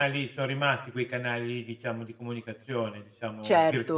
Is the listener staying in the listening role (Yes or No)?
No